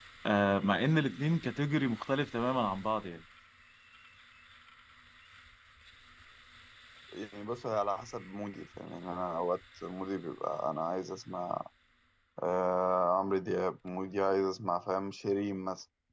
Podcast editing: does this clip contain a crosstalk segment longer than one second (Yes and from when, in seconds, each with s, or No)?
No